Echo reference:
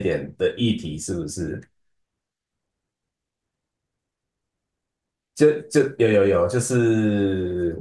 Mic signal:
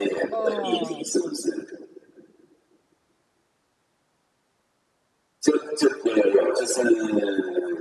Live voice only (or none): 哦